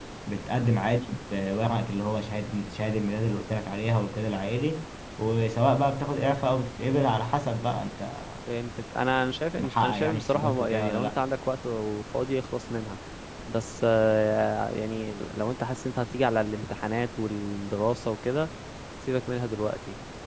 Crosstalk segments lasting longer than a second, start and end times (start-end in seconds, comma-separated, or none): 9.6-11.2